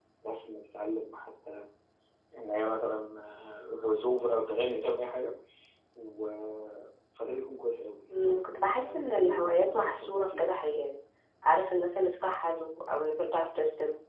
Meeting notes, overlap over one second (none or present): present